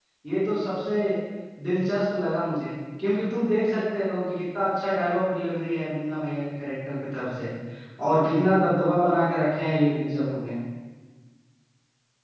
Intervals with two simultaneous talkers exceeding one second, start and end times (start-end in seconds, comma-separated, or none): none